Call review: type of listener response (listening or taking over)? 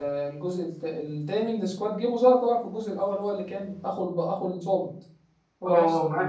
taking over